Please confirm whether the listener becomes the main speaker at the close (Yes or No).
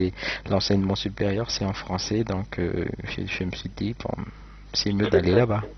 Yes